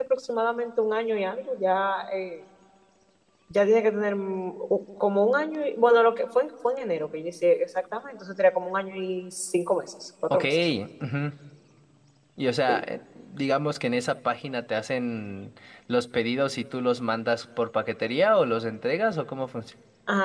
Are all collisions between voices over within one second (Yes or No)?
Yes